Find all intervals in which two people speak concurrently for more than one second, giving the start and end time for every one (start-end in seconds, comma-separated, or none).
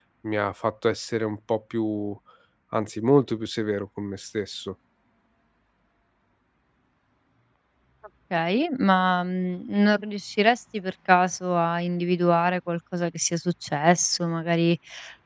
none